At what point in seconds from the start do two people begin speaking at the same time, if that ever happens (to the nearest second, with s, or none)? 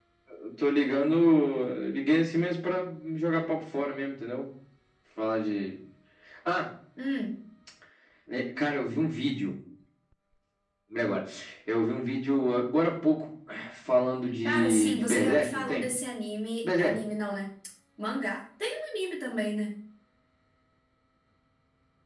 14 s